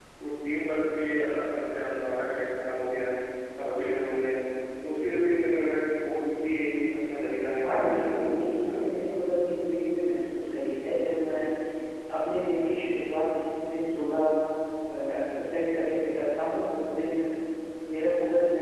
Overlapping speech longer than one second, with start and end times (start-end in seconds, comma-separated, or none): 7.6-9.0